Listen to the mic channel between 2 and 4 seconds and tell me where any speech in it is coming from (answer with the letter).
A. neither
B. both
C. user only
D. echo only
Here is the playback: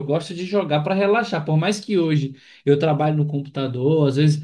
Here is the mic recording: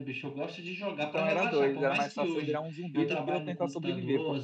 B